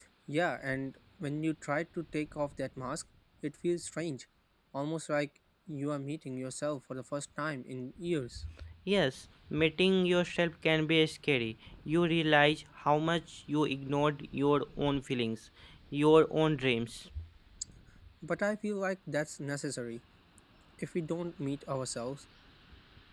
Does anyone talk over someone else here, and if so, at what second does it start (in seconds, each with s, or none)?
none